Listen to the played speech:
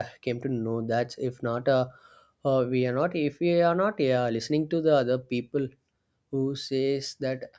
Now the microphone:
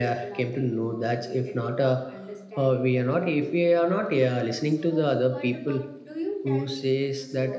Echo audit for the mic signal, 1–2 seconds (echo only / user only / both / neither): both